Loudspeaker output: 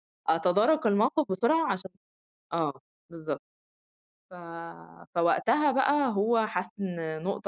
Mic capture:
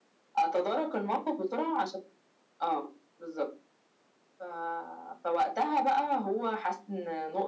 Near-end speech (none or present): none